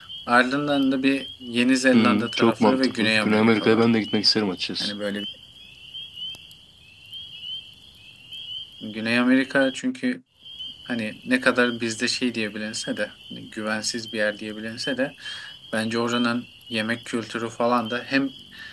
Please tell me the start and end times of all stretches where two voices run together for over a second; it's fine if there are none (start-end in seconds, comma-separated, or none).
1.9-3.9